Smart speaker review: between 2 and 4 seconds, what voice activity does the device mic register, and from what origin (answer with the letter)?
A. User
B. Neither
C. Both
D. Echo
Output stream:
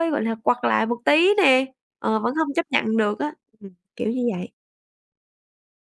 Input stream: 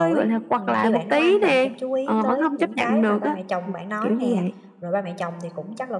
C